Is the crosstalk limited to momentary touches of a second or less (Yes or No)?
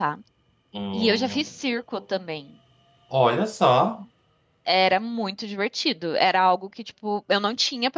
Yes